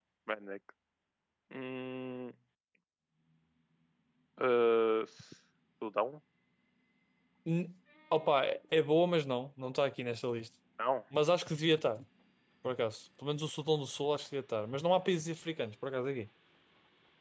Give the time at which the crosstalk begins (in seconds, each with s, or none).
none